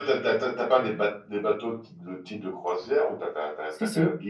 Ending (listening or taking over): listening